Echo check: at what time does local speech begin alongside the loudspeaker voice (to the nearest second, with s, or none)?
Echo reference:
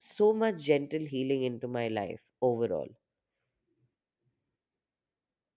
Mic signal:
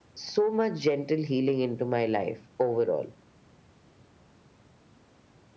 none